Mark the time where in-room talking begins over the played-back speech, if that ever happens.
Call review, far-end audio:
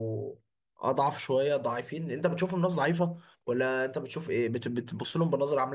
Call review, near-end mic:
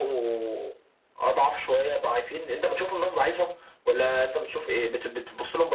none

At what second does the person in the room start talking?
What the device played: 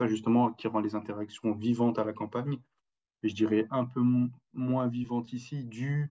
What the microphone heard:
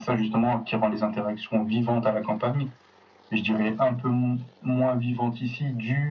none

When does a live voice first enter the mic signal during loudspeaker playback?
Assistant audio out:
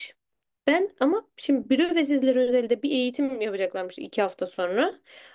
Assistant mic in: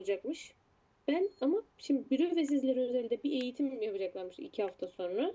none

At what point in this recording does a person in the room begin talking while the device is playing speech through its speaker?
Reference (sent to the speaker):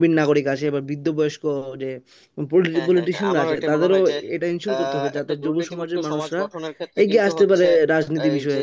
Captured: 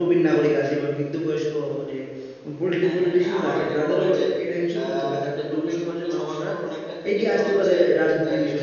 none

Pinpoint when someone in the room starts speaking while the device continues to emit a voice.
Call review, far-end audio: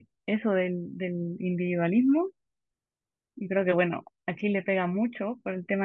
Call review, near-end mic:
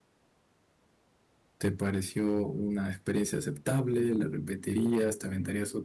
2 s

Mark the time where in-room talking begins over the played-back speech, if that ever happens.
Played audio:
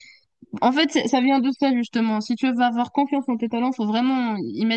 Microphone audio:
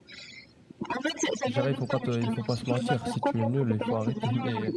1 s

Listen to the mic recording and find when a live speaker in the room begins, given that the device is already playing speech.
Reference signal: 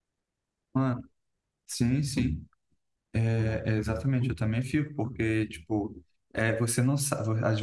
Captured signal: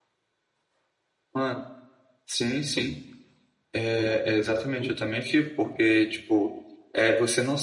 none

